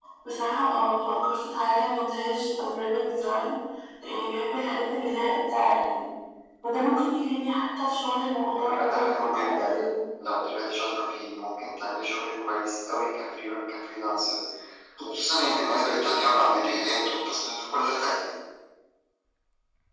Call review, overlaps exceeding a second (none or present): present